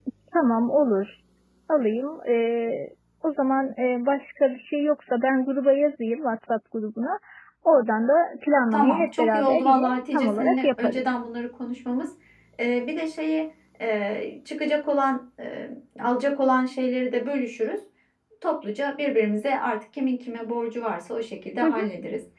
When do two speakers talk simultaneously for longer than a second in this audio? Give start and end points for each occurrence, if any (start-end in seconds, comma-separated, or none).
8.7-11.2